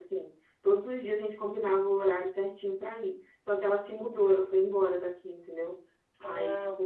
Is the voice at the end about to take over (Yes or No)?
No